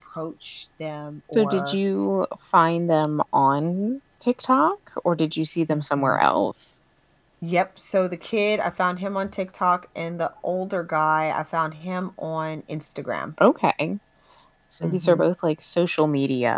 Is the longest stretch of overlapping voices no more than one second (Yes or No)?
Yes